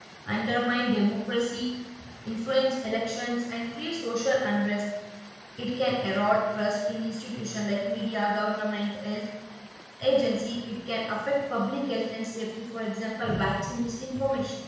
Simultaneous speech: No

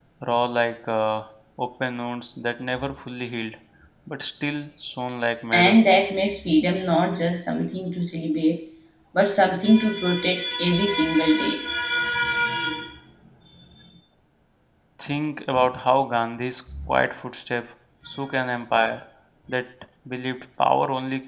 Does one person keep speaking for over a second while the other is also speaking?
No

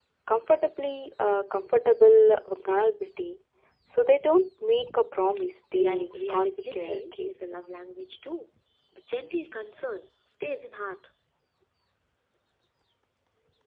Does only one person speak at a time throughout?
No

